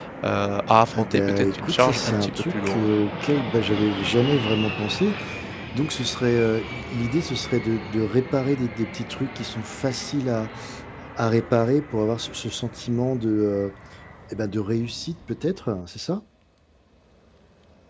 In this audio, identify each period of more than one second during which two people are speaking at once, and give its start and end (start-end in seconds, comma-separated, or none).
0.9-2.9